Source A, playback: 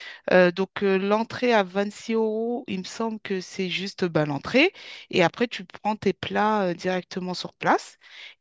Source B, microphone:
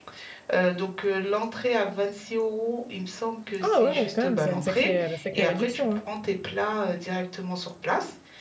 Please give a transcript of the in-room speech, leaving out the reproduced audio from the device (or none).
Ah ouais, quand même, c'est une sacrée, sacrée réduction. hein.